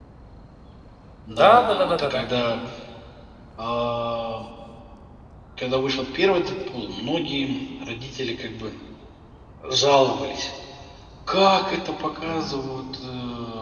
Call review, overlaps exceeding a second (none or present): present